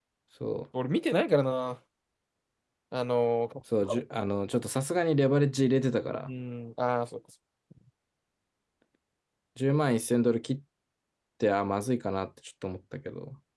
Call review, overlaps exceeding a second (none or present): none